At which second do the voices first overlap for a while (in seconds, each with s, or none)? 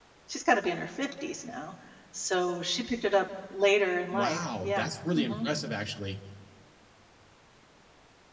4.1 s